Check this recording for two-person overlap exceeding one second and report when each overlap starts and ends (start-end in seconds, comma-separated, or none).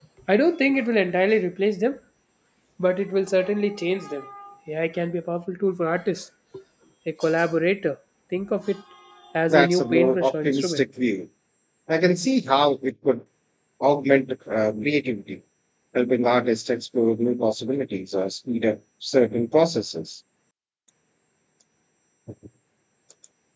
9.5-10.8